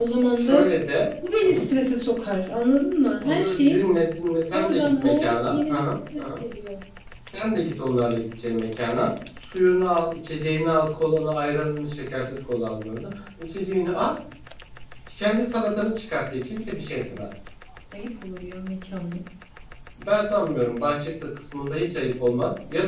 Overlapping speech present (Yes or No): Yes